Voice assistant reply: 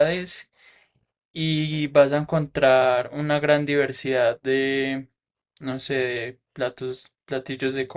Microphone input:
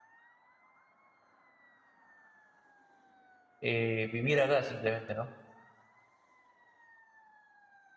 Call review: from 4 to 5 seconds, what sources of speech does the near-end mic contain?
user only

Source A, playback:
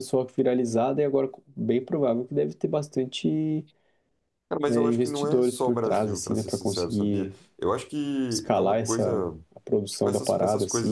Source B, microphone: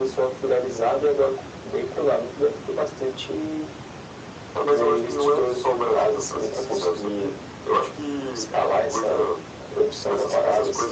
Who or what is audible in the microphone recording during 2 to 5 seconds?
echo only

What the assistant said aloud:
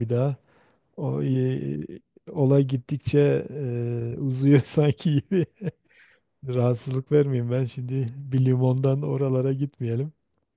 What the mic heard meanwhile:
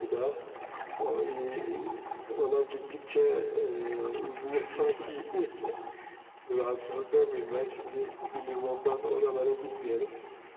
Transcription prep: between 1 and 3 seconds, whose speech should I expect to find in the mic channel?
echo only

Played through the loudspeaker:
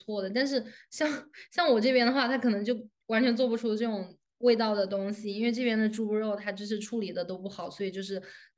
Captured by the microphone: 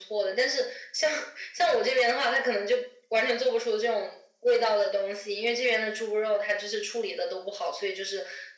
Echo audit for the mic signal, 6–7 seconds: echo only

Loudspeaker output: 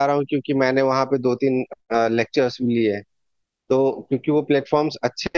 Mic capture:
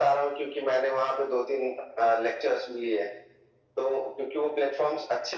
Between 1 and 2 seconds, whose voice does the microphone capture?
echo only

